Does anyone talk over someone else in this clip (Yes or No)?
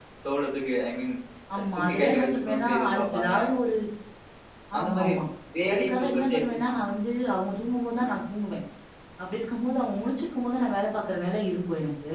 Yes